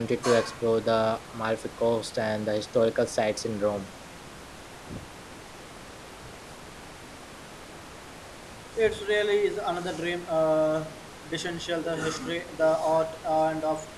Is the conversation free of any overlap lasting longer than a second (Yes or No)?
Yes